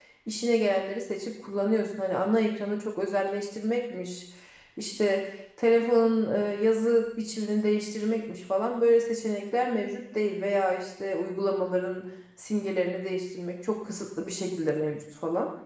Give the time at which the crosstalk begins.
none

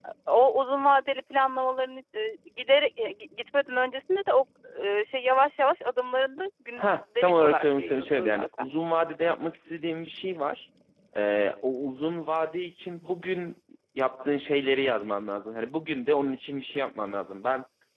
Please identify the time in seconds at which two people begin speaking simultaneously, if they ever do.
6.8 s

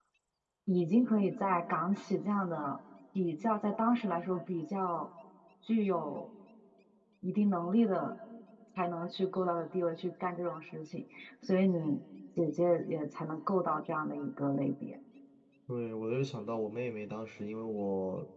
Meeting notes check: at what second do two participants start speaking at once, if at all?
none

